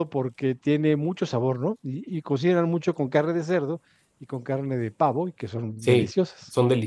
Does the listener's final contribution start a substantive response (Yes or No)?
Yes